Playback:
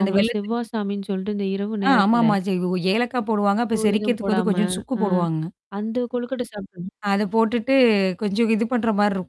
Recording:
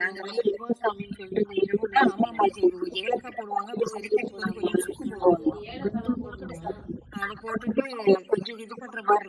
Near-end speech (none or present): present